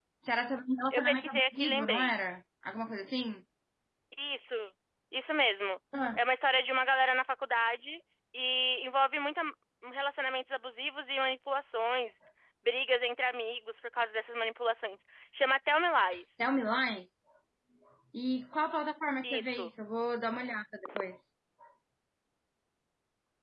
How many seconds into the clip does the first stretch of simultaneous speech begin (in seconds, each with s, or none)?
0.9 s